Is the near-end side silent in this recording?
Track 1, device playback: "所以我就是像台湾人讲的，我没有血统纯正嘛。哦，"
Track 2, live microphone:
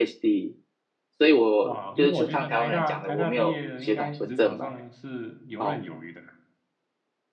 No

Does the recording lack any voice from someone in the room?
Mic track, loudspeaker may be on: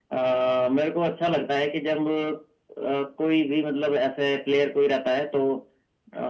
Yes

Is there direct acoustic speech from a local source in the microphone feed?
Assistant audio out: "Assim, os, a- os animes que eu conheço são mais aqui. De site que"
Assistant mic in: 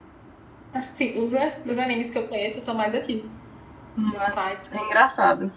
Yes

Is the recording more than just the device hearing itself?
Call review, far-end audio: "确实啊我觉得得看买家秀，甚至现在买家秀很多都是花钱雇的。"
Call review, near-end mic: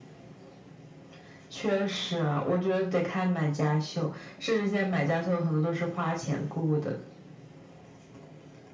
No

